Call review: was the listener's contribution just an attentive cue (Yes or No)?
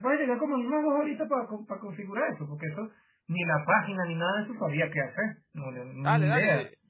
No